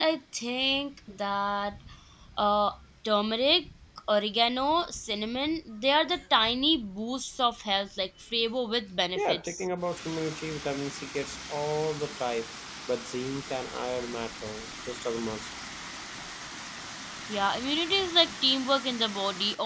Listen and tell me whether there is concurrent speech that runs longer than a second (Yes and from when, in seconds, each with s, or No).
No